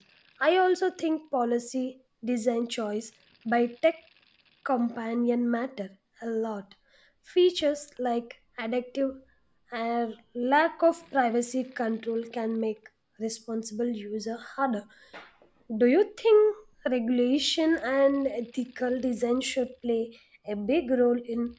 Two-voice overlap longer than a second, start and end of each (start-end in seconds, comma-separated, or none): none